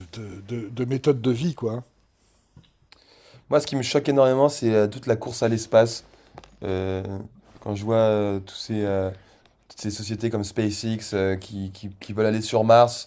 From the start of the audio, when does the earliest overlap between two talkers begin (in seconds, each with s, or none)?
none